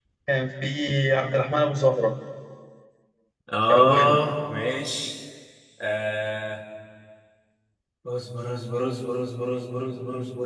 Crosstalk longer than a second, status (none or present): none